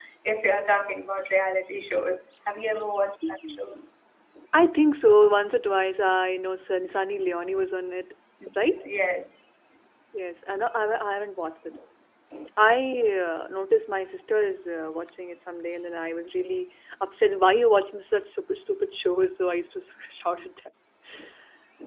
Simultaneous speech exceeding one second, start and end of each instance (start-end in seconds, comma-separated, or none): none